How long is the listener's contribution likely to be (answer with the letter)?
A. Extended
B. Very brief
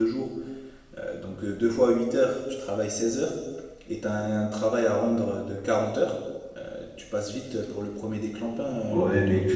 A